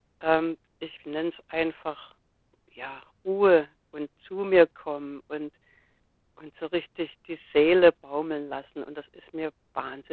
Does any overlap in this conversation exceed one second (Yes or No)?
No